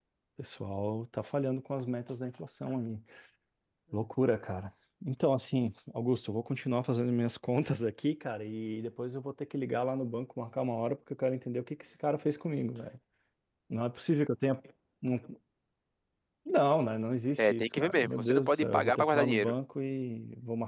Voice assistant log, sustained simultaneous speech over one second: present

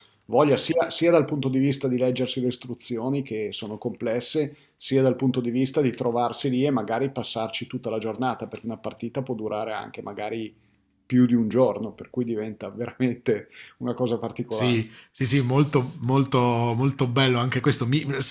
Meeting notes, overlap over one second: none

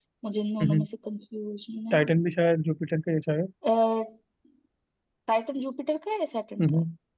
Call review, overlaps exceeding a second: none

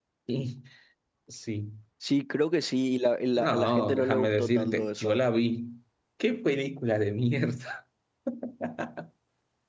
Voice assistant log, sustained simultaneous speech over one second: present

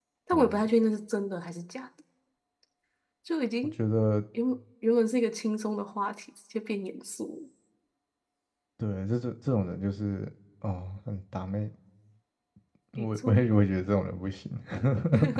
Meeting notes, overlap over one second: none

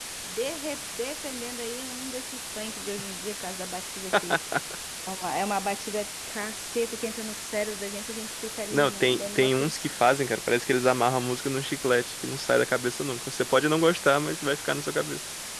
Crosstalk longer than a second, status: present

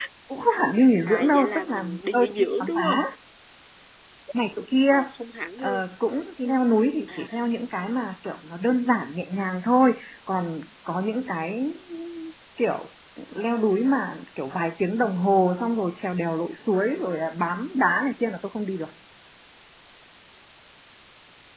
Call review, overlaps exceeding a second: present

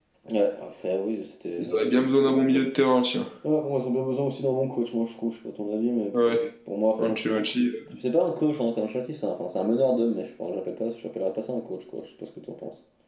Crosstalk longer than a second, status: none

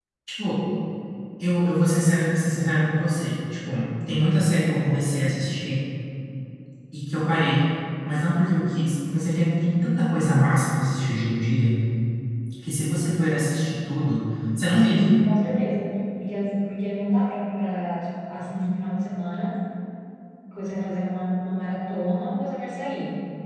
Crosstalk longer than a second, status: none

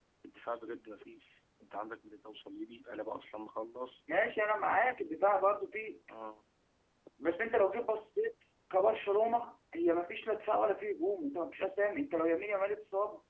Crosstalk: none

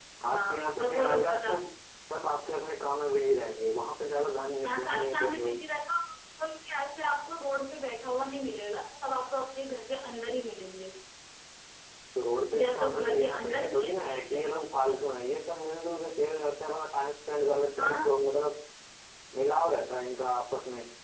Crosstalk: present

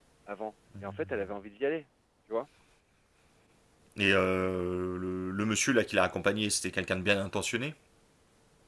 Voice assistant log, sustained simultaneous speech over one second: none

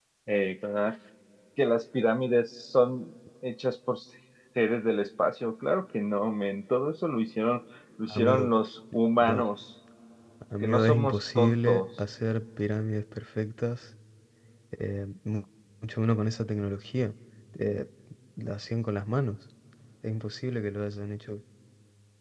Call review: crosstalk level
present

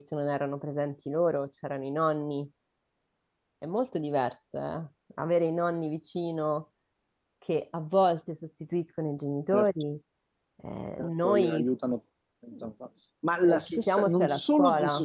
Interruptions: present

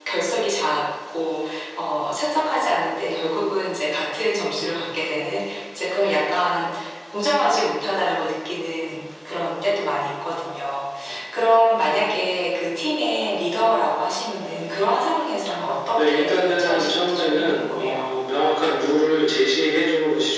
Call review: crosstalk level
present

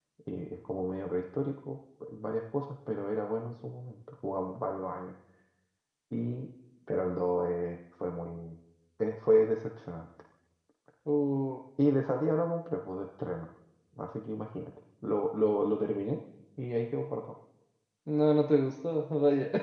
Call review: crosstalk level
none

